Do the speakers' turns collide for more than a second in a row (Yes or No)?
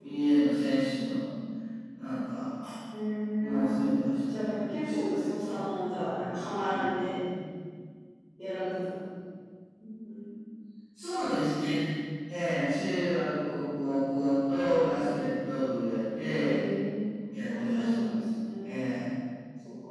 Yes